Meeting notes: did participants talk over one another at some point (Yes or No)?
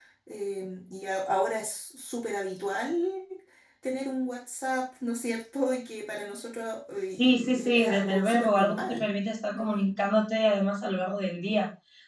Yes